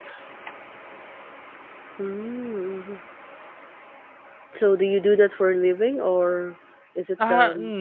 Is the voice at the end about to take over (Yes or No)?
Yes